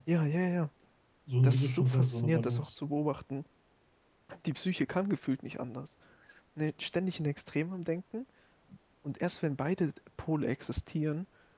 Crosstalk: present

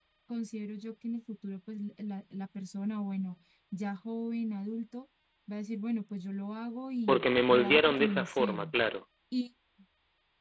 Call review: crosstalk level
present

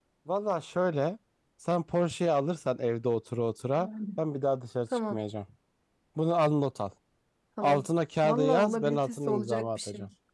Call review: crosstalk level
present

